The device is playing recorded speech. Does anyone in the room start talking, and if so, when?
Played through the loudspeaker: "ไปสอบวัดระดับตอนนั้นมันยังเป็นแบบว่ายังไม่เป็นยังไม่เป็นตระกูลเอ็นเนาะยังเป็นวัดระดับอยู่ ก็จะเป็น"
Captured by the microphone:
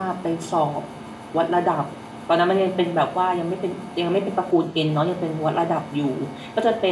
none

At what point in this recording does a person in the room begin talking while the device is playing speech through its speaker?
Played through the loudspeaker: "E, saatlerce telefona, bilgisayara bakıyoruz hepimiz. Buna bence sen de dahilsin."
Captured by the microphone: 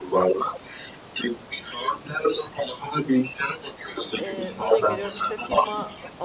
4.2 s

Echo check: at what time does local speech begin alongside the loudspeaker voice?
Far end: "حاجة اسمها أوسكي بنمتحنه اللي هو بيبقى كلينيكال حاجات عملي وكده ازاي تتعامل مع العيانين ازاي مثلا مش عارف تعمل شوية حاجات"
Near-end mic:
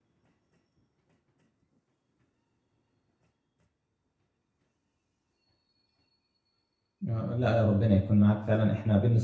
7.1 s

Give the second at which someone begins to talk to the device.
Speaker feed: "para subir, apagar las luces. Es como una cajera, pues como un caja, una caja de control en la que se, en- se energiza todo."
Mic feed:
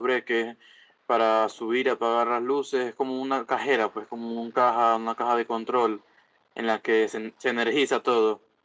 none

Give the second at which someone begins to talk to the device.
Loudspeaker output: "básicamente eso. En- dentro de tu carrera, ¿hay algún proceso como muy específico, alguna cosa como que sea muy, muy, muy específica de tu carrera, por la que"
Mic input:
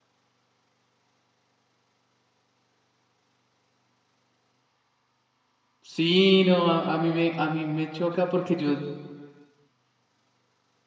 5.8 s

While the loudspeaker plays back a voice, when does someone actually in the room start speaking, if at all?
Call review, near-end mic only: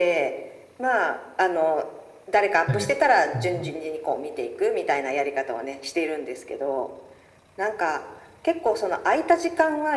2.6 s

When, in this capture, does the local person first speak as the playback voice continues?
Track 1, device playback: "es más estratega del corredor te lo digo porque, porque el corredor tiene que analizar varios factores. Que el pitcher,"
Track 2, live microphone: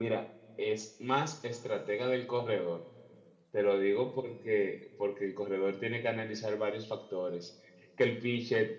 none

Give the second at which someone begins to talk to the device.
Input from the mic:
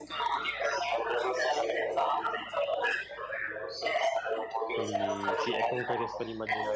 4.7 s

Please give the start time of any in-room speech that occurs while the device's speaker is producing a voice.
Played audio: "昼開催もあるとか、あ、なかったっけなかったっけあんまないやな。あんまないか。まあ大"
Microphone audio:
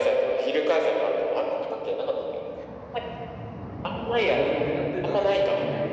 3.9 s

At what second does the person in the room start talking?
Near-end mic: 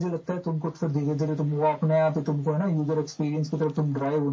none

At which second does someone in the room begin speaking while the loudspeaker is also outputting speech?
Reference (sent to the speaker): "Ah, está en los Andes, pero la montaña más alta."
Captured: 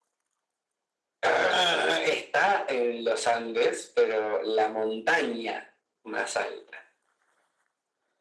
none

